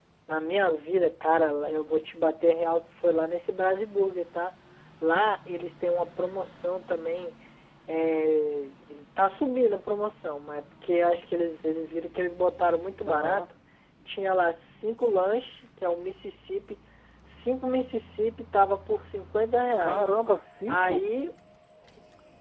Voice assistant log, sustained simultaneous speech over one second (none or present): none